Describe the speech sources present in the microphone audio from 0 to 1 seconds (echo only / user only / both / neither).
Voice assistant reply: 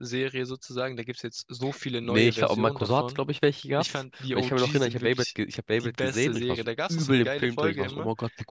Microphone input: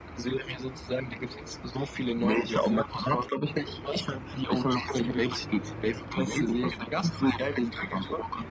echo only